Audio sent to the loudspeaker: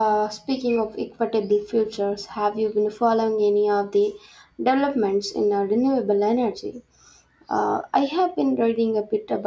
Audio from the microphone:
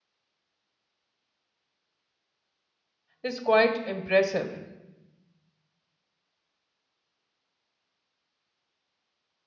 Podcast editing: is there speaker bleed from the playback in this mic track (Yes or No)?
No